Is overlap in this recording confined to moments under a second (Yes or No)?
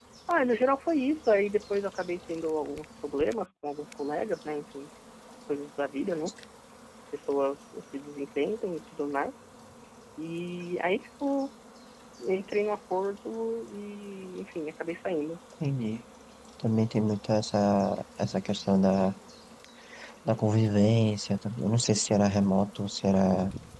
Yes